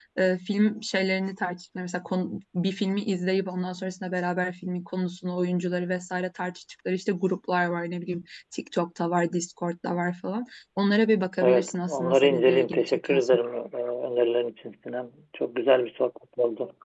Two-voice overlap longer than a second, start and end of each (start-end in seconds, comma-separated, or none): 11.4-13.4